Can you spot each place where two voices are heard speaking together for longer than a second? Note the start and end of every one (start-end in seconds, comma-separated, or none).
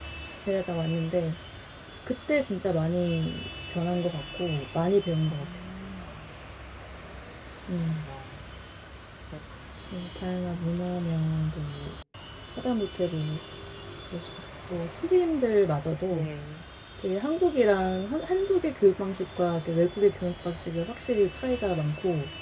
none